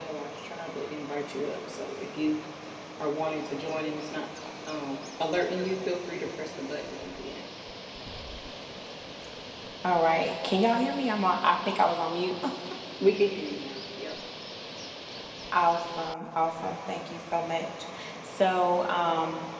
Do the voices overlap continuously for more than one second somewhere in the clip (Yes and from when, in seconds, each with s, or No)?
No